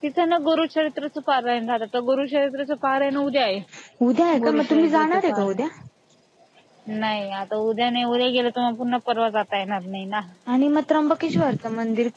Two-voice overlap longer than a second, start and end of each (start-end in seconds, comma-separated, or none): 4.4-5.6